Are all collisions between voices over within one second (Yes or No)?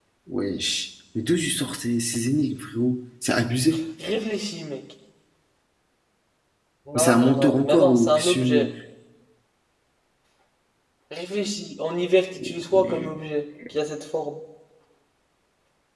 No